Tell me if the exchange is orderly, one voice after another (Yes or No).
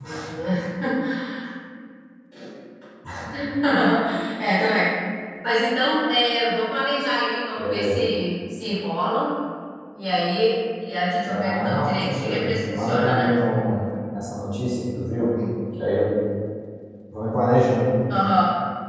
No